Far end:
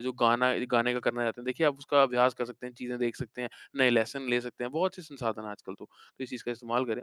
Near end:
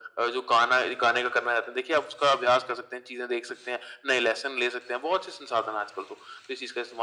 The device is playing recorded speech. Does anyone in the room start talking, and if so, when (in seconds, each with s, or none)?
none